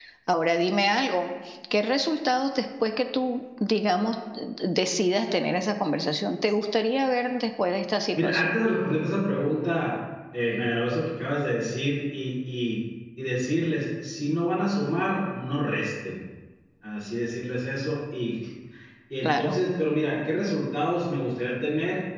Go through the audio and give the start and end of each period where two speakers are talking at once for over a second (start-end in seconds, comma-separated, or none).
none